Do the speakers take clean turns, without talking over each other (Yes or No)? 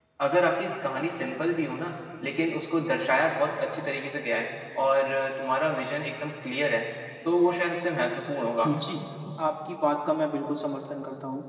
Yes